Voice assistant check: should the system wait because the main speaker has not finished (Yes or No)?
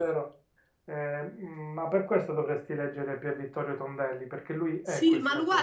No